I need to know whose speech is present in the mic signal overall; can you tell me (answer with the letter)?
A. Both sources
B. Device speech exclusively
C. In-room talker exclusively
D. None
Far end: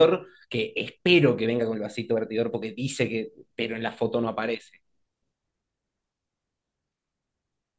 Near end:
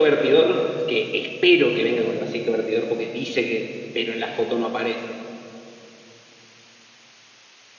B